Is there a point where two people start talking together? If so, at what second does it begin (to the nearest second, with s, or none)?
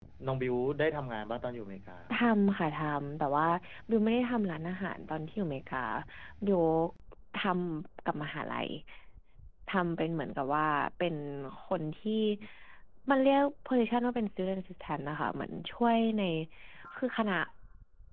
none